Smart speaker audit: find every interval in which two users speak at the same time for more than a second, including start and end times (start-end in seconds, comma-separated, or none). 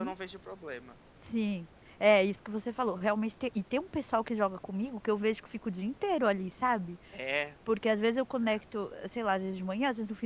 none